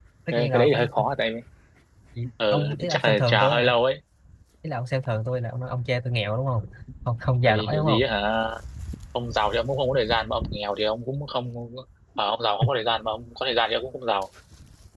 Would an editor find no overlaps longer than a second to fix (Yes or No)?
No